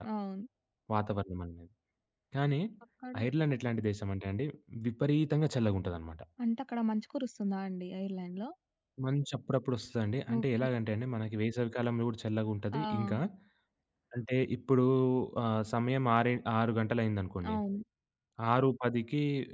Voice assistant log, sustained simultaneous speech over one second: none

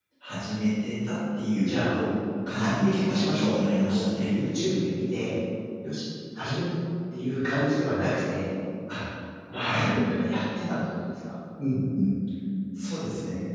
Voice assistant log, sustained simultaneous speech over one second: present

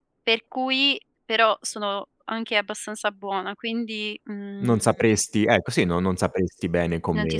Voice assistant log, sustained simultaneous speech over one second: none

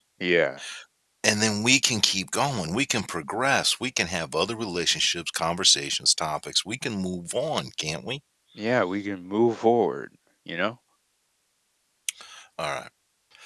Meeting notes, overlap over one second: none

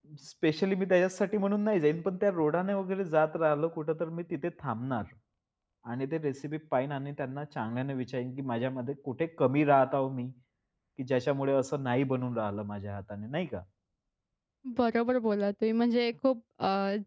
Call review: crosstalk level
none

